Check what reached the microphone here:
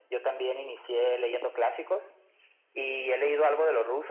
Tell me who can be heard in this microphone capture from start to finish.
echo only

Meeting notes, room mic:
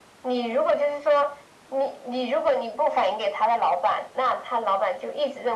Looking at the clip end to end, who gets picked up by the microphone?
echo only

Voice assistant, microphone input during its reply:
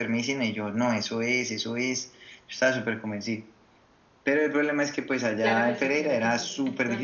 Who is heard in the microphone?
both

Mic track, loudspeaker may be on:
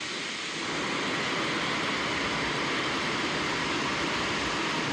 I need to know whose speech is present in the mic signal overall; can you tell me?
neither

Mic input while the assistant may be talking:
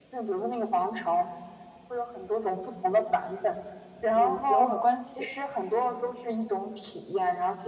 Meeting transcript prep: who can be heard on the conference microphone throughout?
both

